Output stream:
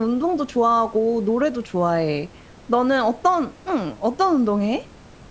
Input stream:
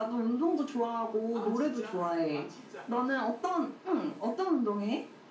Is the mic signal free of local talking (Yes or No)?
No